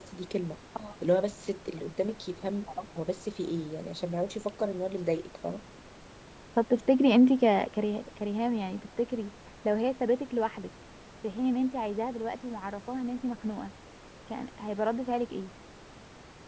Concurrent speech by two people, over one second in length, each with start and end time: none

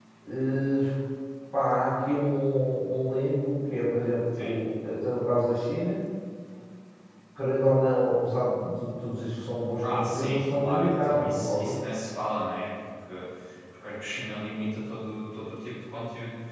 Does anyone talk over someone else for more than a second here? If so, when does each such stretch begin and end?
9.8-11.8

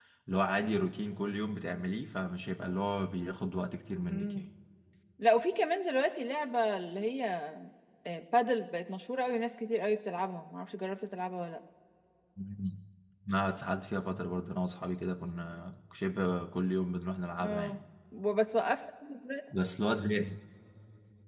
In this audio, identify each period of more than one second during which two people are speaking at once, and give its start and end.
none

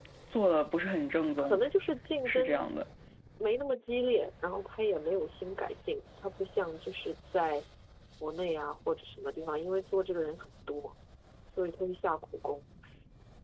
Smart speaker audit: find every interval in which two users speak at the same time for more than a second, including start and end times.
none

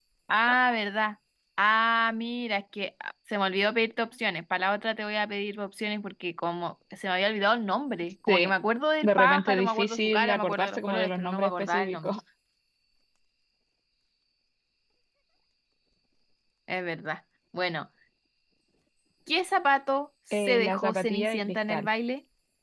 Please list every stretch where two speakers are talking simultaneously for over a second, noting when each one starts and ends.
9.0-12.1, 20.3-21.9

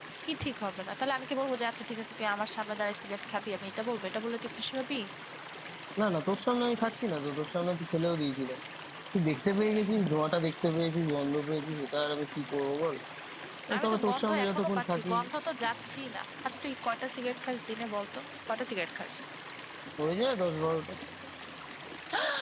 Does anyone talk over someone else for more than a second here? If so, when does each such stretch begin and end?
13.8-15.1

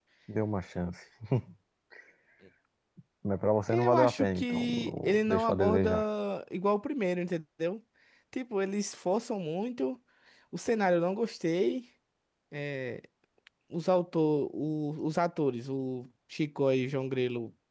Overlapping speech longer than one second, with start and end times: 3.7-6.0

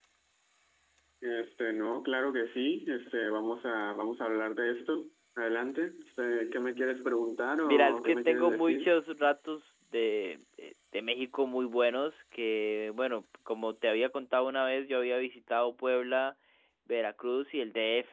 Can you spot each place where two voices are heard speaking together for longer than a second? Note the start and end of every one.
7.7-8.9

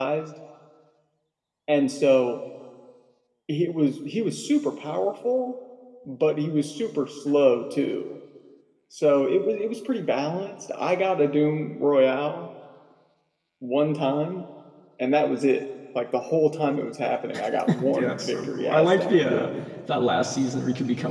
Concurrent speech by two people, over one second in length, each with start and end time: 17.9-19.5

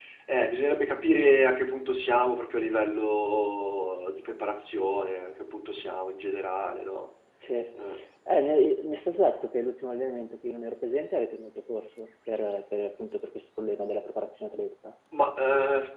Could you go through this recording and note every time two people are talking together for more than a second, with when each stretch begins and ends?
none

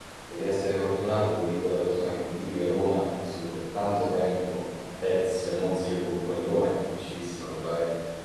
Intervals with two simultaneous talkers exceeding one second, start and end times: none

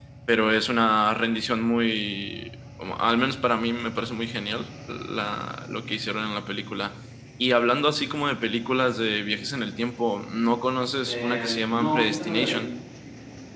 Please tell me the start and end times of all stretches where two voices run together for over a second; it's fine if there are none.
11.1-12.7

